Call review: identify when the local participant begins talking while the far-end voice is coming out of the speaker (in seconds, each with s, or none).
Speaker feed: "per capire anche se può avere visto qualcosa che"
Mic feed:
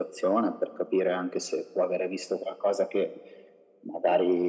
none